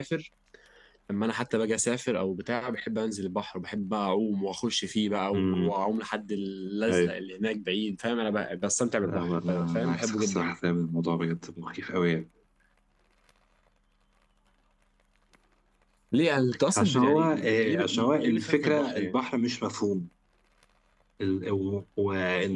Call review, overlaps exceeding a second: present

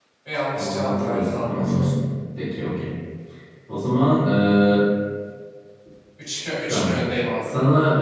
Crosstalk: present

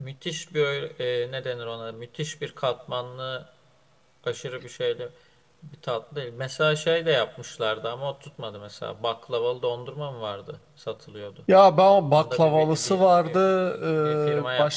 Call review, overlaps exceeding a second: present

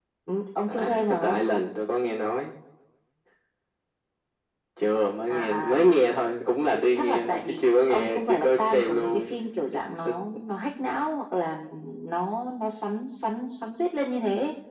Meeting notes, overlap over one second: present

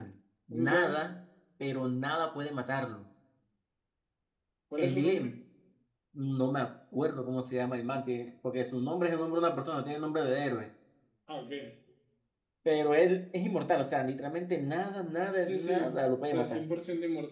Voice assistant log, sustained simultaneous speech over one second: present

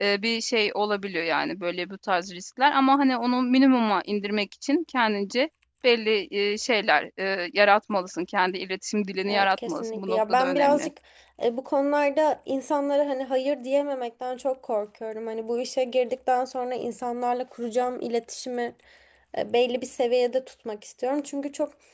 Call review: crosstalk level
present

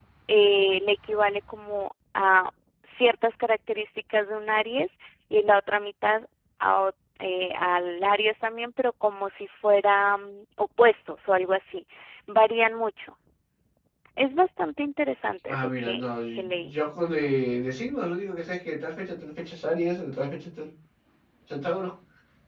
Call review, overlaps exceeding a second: present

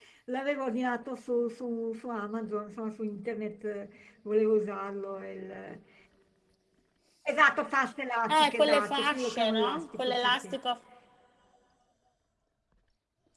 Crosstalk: present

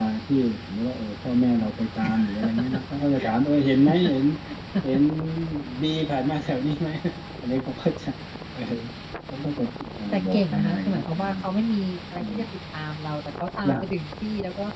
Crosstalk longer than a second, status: present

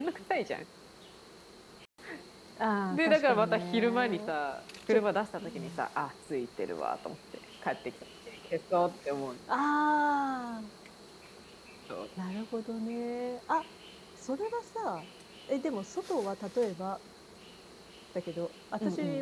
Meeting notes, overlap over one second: present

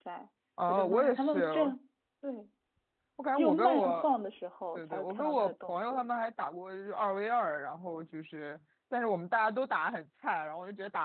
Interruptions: present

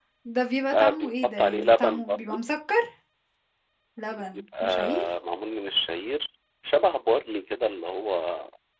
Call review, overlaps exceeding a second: present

